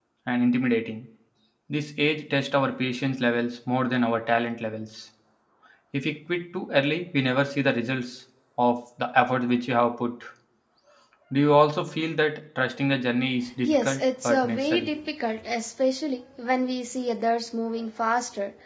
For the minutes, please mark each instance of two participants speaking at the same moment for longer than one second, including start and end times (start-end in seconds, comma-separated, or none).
13.6-14.9